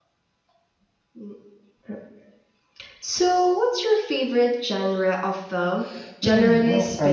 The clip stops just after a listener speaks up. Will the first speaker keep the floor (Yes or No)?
No